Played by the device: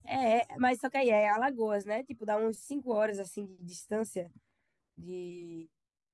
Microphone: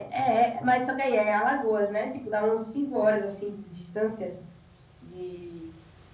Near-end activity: none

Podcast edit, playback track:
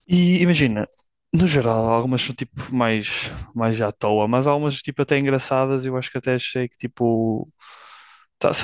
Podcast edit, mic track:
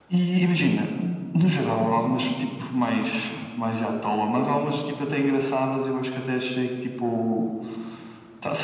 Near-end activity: none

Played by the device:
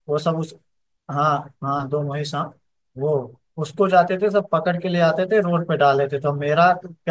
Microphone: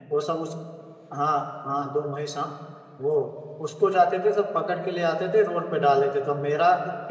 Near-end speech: none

